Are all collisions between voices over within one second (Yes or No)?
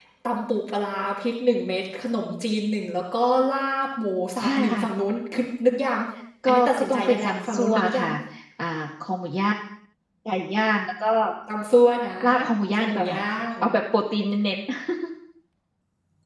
No